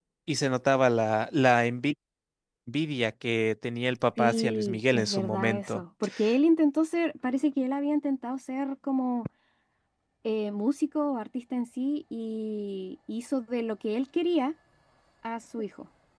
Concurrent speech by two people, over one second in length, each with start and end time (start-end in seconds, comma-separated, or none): 4.2-5.8